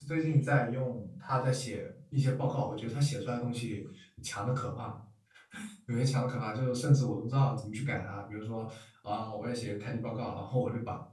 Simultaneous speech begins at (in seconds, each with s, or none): none